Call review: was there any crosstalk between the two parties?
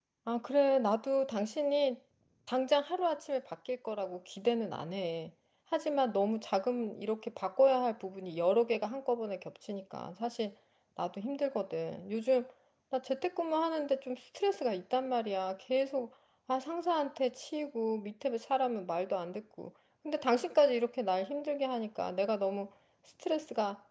No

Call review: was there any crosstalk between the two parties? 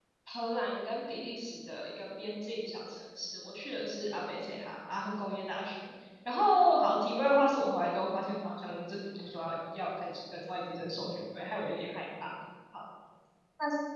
No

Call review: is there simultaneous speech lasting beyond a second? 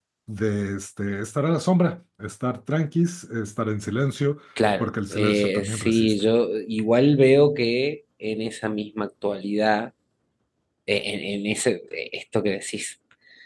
Yes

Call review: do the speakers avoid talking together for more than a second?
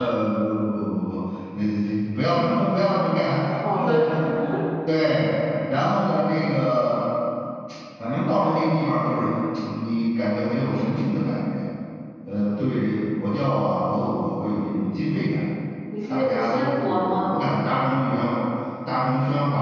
No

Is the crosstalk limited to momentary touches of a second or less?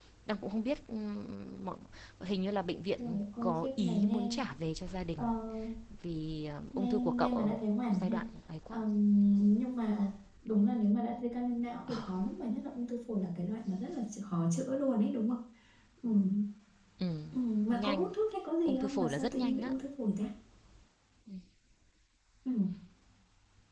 No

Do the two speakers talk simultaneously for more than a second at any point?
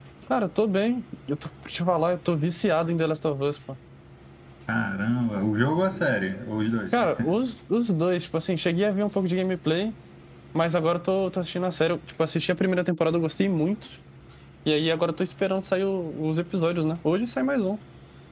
No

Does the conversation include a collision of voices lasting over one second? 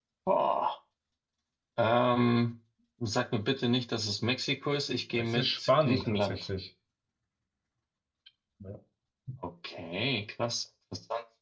Yes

